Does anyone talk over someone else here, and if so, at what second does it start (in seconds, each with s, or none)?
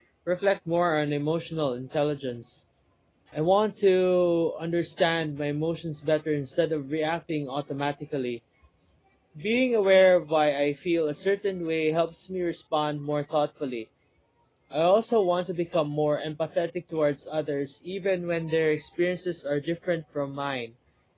none